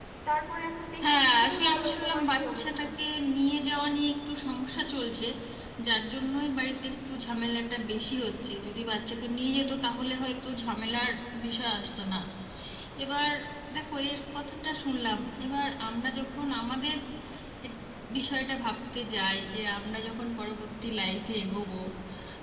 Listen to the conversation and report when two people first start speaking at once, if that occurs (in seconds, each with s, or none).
1.0 s